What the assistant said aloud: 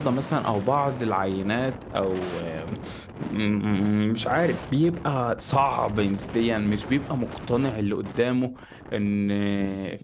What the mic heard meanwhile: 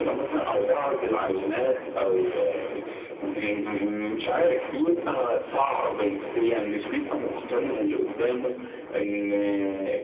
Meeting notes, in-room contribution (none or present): none